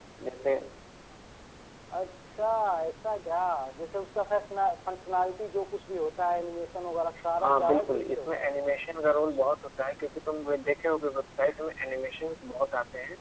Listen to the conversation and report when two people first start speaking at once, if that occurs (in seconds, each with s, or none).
7.4 s